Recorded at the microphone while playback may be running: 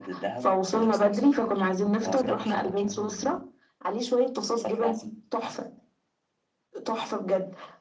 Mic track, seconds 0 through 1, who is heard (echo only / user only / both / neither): echo only